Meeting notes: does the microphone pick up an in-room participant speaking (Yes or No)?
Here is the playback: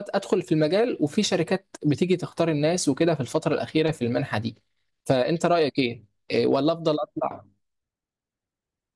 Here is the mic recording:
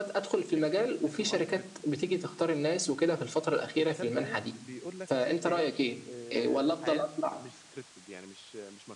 Yes